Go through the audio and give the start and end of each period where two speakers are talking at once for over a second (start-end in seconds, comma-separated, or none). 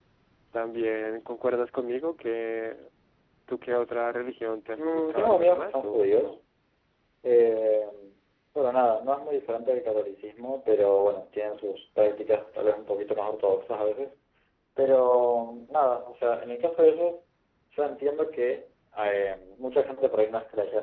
4.8-6.4